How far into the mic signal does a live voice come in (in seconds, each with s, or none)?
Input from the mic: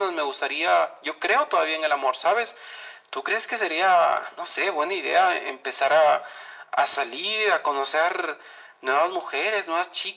none